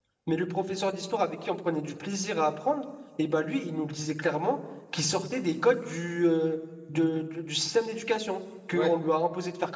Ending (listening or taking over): listening